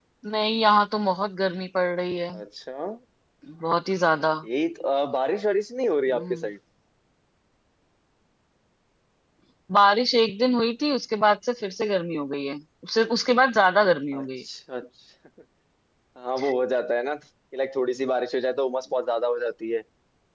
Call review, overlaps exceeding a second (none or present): none